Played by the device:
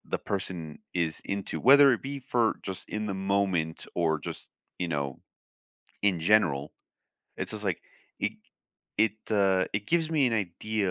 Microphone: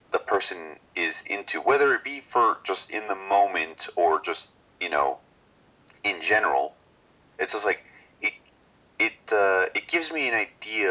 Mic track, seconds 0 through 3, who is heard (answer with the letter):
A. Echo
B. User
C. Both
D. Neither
A